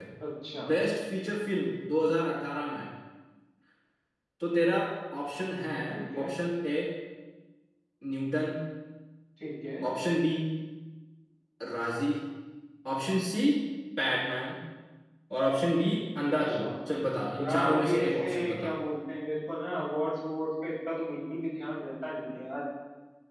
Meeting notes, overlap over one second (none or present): present